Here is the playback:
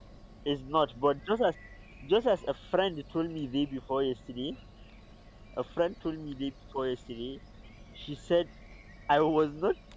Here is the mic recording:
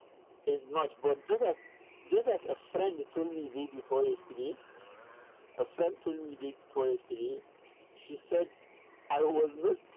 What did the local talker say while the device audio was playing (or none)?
none